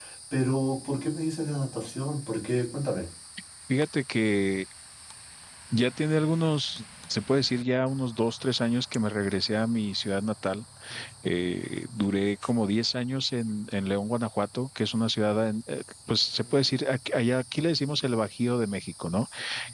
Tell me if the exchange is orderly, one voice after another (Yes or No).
Yes